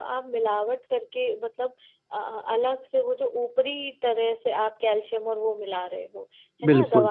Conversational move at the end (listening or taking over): listening